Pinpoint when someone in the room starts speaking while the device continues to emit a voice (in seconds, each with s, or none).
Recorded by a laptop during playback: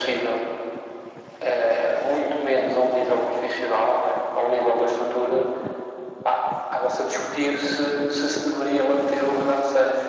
none